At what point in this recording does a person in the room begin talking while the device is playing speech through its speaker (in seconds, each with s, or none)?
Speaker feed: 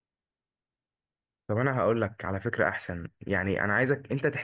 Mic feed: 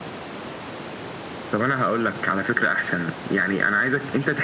none